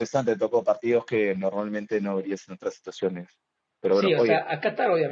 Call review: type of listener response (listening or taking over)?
taking over